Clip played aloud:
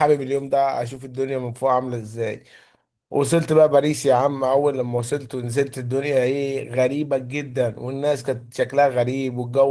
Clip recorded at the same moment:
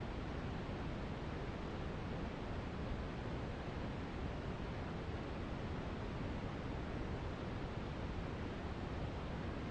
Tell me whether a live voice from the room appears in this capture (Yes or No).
No